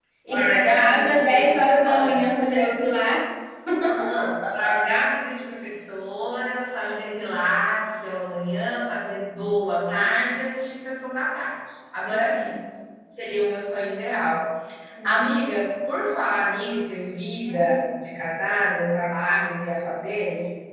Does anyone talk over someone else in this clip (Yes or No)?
Yes